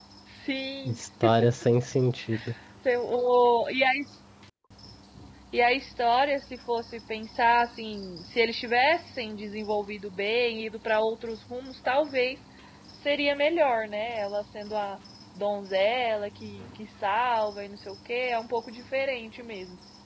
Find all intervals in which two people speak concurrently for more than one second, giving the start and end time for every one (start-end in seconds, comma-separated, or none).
none